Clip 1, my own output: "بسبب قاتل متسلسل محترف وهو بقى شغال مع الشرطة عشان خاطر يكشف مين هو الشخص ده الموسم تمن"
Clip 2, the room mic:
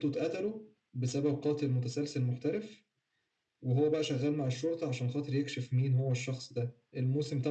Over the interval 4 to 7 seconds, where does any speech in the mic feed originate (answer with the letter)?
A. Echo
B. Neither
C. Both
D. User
A